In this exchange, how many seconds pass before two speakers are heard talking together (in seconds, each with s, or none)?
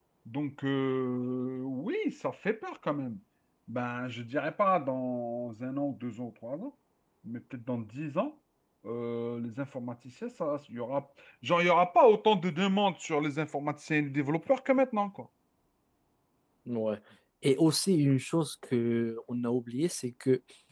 none